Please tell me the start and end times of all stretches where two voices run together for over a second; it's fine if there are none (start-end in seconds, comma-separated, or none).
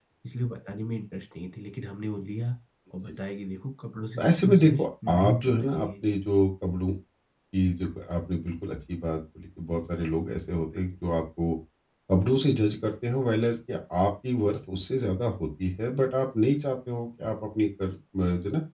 4.2-6.1